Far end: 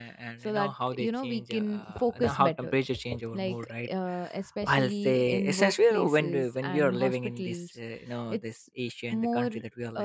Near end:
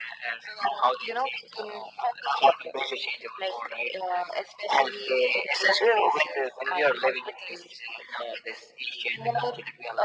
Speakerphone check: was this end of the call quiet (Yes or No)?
No